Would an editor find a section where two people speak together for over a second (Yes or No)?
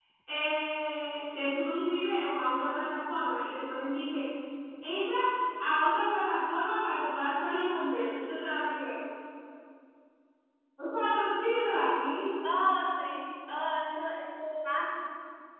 No